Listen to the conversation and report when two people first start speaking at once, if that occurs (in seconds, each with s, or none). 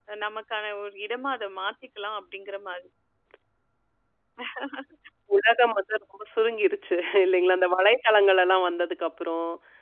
none